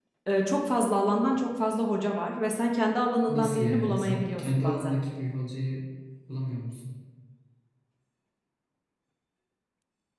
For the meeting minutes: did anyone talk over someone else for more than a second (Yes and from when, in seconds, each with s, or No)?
Yes, from 3.3 s